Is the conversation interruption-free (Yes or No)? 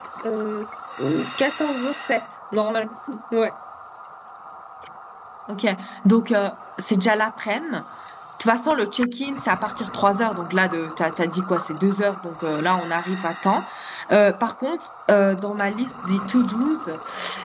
Yes